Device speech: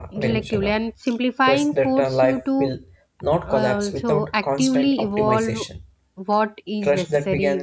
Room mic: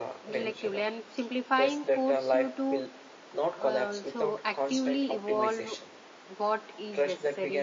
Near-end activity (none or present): none